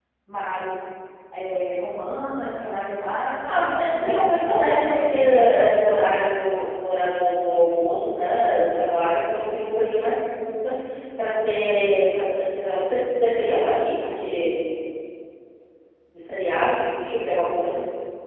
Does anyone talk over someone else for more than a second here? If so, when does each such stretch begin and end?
3.5-5.5

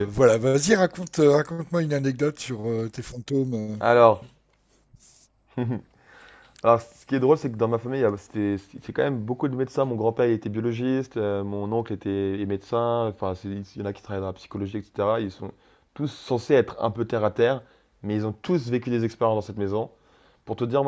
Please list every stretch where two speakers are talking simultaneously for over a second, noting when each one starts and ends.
none

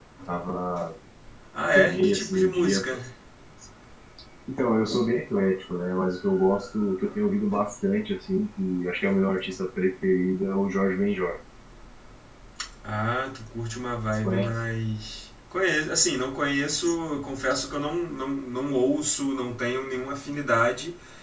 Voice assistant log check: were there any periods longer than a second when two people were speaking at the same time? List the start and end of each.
1.7-3.0

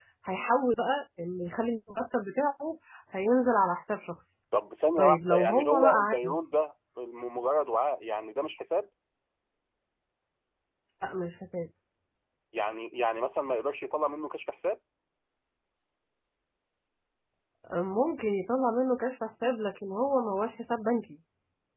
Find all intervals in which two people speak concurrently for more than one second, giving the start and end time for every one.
5.0-6.6

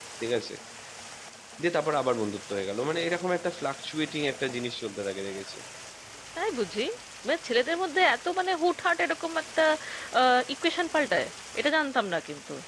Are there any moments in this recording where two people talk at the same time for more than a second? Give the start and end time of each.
none

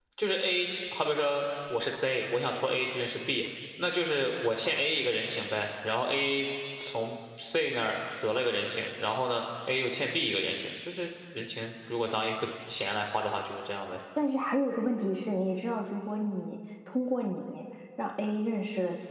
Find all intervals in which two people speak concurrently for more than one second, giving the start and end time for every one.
none

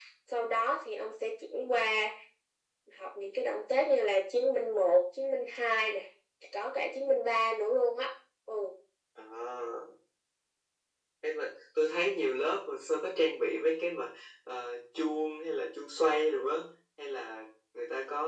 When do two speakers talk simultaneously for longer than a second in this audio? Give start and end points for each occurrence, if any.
none

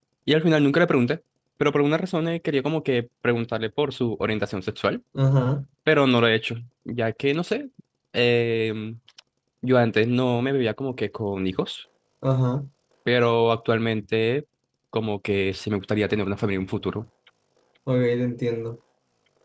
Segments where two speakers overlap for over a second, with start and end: none

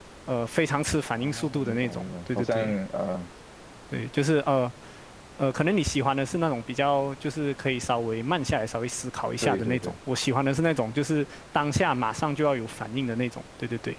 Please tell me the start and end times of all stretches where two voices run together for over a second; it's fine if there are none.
1.2-2.6

